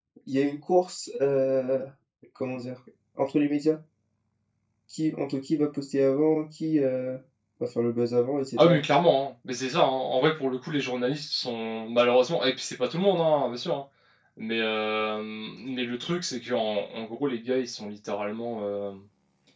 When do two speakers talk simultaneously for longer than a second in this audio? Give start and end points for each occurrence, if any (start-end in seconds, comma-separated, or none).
none